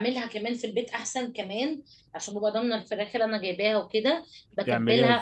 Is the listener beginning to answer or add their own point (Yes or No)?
No